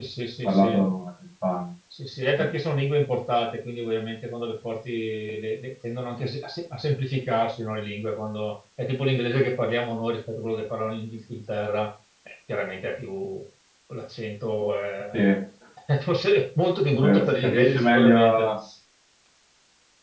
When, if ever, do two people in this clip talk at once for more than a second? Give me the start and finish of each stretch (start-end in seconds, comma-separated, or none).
17.2-18.5